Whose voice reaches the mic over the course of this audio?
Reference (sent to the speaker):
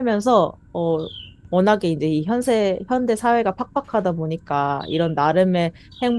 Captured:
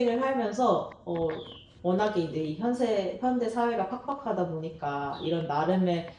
echo only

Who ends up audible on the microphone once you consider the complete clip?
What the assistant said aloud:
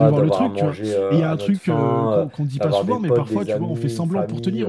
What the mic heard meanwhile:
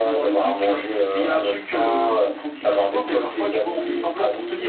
echo only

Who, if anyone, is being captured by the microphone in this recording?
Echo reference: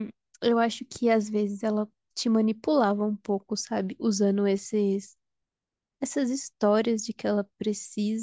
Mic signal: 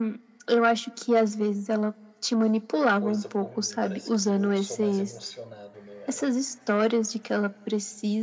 both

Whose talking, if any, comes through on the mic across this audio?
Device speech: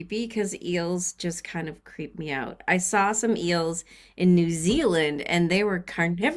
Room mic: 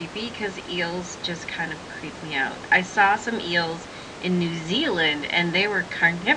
echo only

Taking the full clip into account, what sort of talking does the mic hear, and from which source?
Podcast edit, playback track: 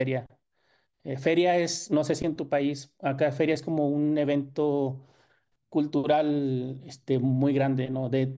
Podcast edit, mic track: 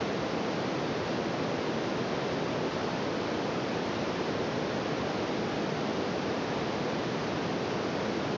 neither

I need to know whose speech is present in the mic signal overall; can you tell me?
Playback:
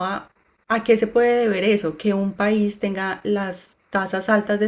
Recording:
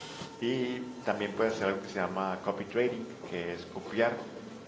user only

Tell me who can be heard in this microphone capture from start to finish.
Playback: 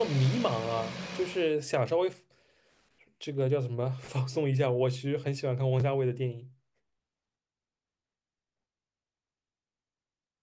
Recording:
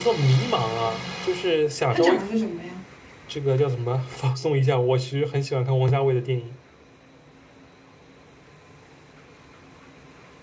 both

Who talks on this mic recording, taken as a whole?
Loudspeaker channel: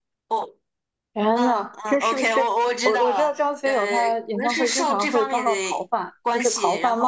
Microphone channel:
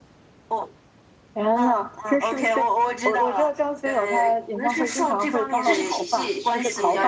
both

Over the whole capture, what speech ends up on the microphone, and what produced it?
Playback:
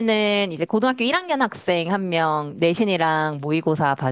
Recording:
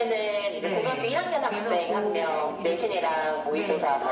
both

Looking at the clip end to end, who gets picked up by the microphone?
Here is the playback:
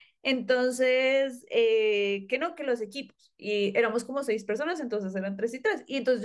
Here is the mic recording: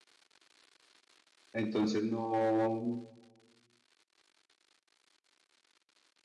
user only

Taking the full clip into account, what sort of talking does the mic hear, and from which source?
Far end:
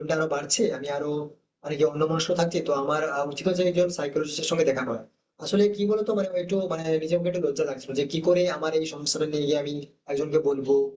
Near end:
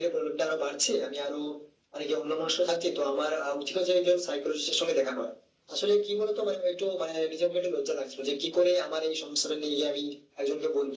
echo only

